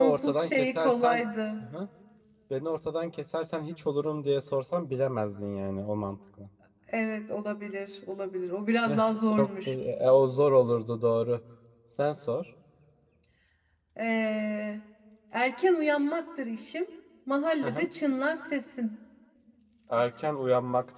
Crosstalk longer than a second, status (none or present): present